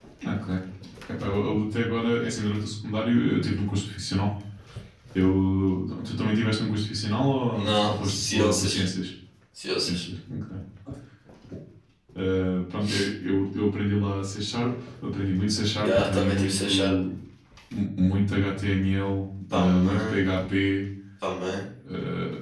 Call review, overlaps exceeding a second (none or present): present